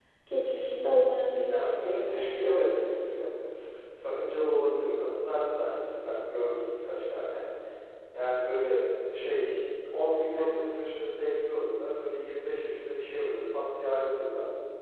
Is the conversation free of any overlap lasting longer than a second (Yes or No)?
No